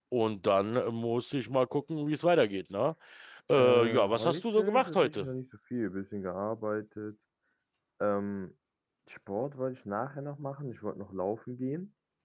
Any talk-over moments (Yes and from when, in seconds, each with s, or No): Yes, from 3.6 s